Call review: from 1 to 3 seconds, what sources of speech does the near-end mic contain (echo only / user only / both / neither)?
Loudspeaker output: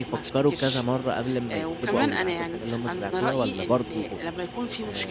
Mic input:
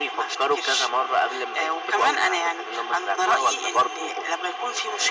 echo only